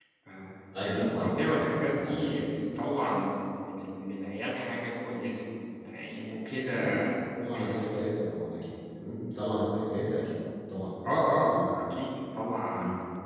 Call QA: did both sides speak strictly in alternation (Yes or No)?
No